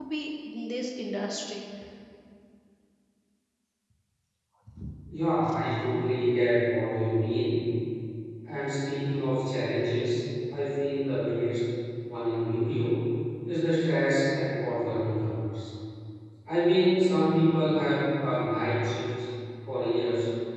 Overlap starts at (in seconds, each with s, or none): none